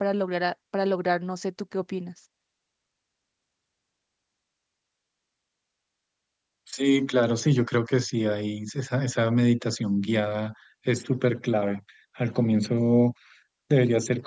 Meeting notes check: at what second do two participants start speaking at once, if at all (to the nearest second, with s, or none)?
none